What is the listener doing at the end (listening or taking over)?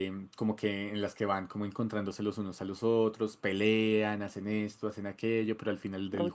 listening